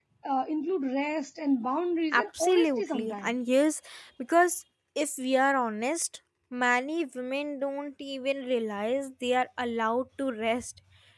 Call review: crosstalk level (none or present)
present